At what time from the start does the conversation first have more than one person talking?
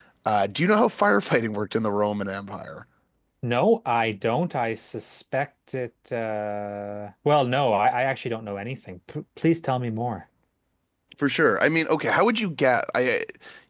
none

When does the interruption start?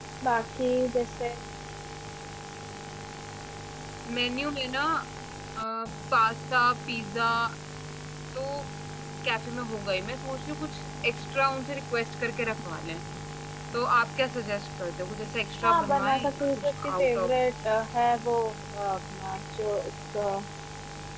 15.6 s

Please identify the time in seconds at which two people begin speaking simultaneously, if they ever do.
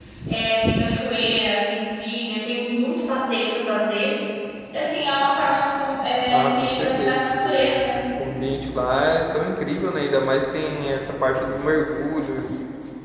6.3 s

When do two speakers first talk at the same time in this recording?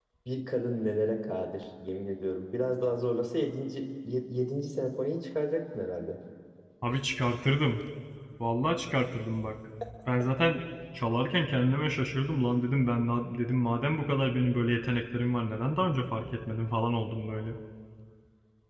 none

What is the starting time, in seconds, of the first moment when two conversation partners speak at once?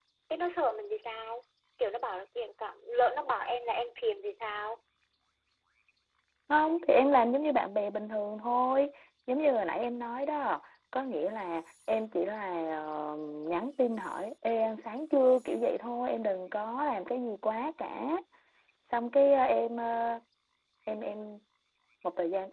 none

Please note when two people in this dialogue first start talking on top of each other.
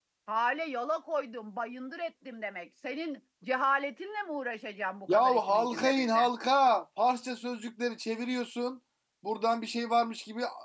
5.1 s

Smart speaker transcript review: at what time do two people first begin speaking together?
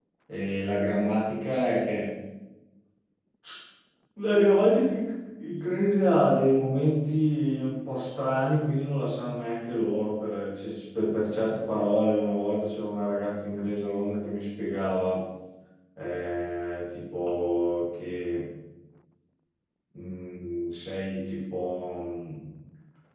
none

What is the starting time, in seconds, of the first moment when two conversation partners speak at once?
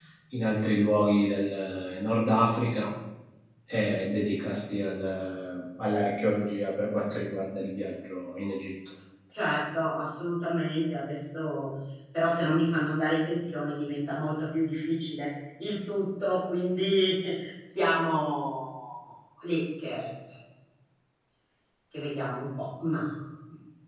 none

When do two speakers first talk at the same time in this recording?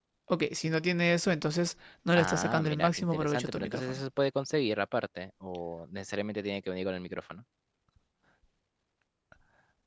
2.1 s

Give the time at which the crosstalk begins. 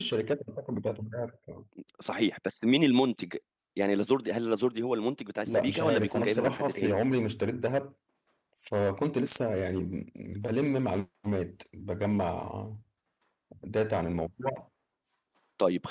5.5 s

